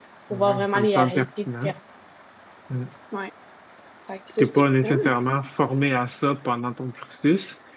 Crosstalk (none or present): present